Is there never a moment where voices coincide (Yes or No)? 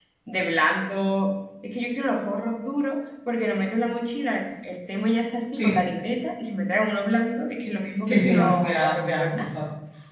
No